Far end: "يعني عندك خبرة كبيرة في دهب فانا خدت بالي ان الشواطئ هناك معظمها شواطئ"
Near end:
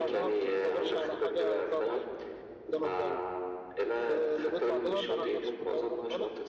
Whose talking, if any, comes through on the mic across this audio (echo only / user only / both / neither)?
both